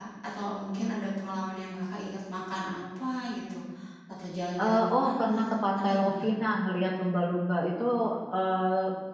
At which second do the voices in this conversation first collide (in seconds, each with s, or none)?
4.6 s